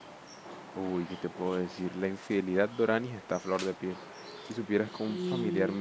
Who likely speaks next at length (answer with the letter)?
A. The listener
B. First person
B